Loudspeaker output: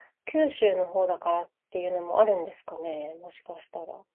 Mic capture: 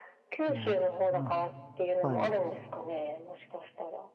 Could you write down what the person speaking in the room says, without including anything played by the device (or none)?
ね。うんはい。